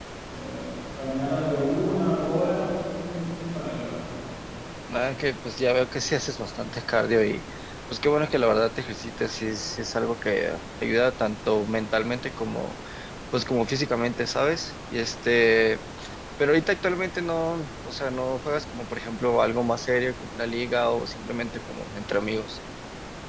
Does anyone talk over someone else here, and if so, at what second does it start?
none

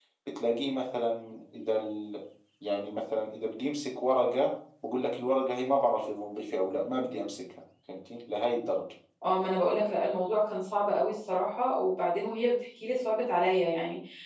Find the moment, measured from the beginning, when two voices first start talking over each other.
none

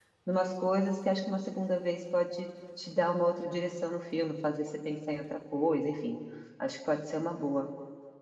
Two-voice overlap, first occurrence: none

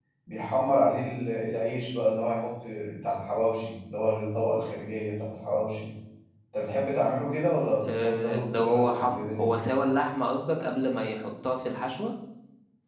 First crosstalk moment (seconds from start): 8 s

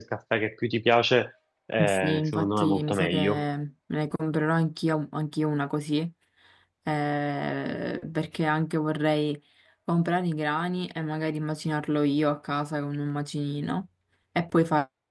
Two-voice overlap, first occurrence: 2 s

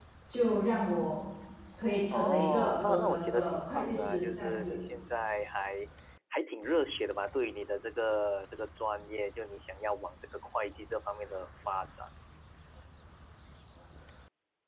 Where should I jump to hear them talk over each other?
2 s

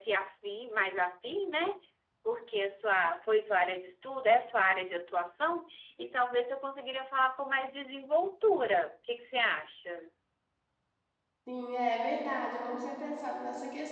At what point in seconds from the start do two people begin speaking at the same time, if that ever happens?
none

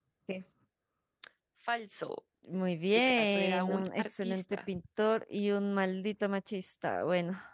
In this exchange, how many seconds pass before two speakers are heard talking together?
3 s

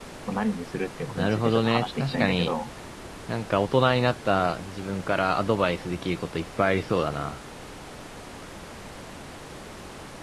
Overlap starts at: 1 s

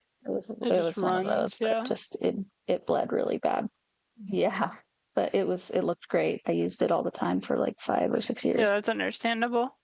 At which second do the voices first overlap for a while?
1 s

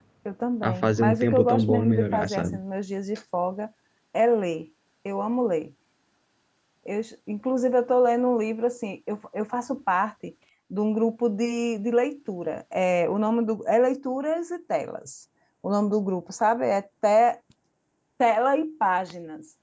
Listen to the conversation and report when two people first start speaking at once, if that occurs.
1 s

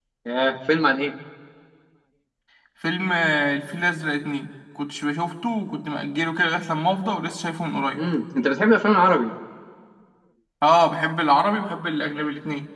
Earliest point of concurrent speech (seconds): none

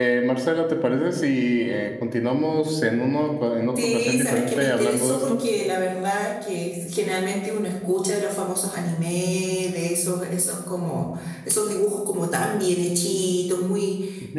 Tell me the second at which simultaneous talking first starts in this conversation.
4 s

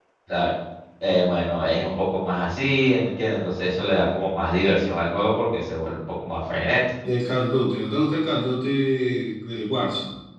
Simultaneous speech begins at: none

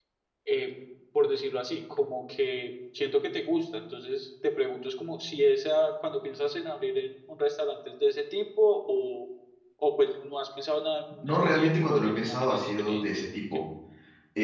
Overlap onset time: 11 s

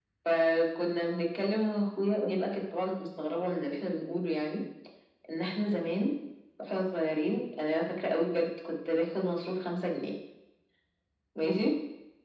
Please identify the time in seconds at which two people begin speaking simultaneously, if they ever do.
none

